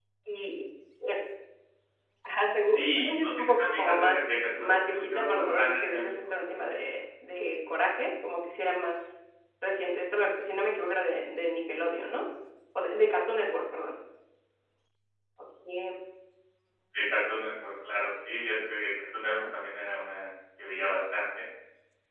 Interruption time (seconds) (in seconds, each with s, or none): 2.7 s